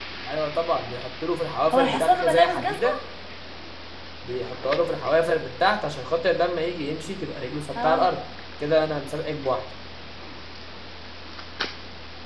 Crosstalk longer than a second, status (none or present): present